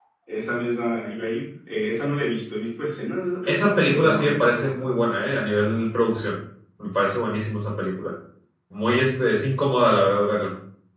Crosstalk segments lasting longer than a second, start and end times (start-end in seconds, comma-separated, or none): 3.5-4.9